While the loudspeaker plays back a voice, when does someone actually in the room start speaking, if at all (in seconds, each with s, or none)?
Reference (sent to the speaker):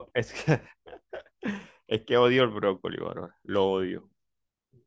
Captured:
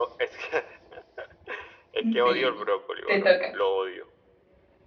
2.0 s